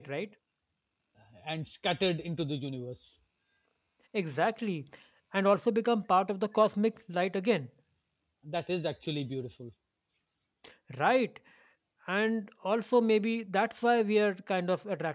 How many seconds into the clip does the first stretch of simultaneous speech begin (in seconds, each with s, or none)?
none